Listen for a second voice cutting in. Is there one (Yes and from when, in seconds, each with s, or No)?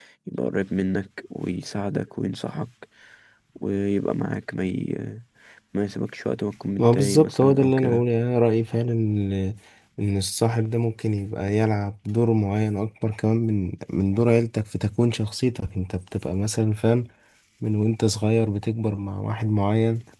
Yes, from 6.8 s